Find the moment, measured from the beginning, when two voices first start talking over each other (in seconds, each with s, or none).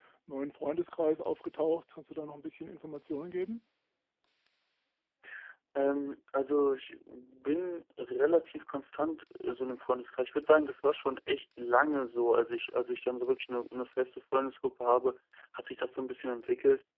none